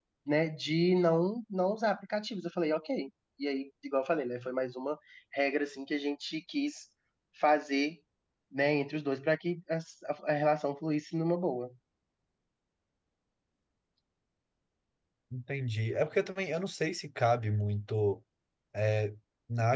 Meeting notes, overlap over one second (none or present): none